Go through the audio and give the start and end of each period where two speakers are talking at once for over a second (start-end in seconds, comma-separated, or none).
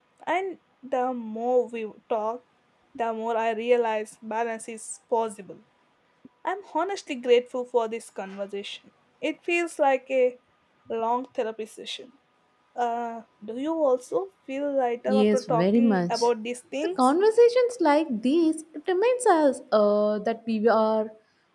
15.1-16.3